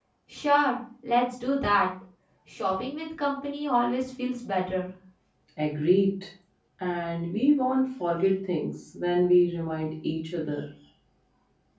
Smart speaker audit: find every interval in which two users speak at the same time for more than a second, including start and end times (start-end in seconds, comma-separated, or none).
none